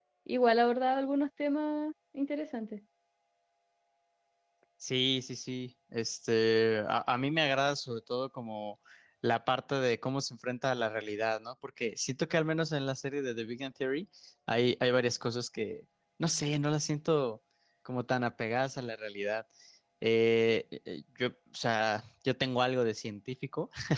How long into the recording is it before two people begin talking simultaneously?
none

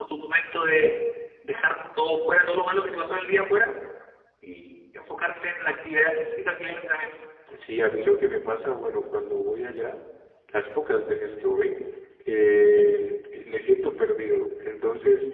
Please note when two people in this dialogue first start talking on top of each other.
none

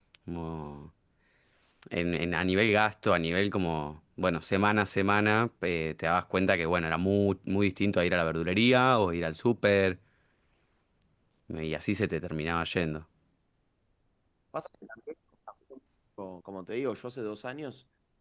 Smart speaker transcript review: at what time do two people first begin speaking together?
none

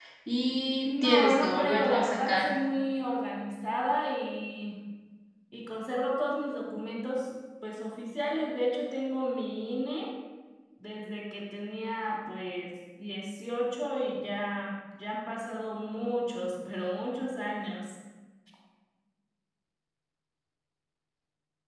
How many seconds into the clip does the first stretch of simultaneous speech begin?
0.8 s

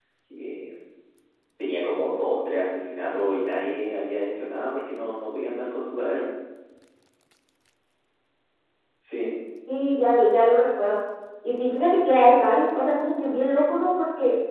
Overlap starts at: none

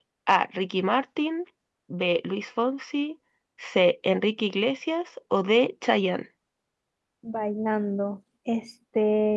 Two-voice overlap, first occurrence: none

